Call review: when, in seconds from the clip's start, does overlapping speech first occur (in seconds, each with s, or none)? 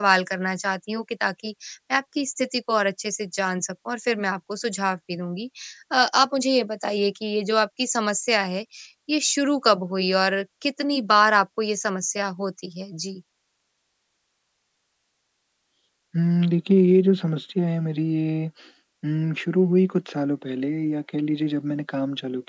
none